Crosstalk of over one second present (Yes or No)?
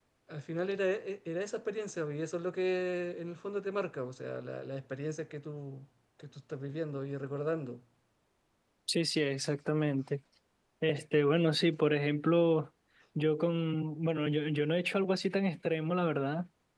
No